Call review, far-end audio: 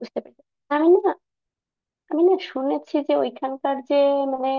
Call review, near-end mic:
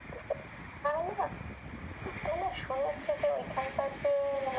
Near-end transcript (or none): none